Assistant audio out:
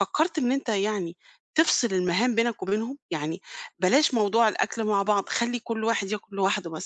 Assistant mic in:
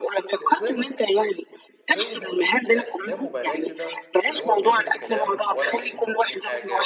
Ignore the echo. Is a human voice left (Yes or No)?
Yes